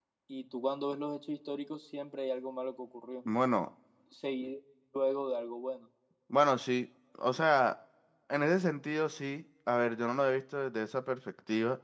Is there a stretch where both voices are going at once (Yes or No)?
No